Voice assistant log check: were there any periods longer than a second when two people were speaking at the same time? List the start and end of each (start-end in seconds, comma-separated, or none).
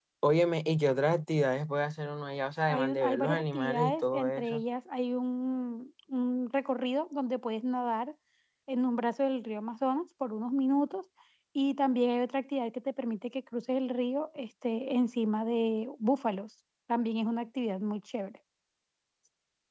2.7-4.6